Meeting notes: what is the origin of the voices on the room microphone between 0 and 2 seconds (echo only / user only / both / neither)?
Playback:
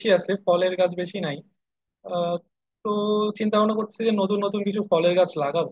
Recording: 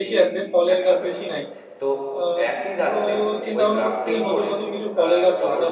both